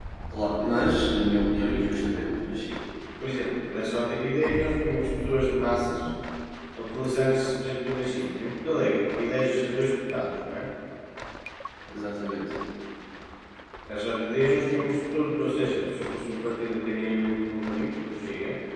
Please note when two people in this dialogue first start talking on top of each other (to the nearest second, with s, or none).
none